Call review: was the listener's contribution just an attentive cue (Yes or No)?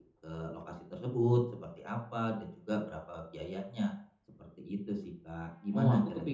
No